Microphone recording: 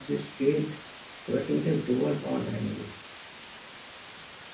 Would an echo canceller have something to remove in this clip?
No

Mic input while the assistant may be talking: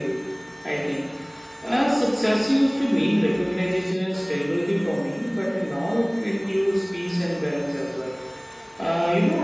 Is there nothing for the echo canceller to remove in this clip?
No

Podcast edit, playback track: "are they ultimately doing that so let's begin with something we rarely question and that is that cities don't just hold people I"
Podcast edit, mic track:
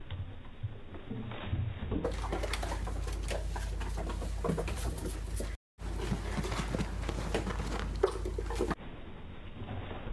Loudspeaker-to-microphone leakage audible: No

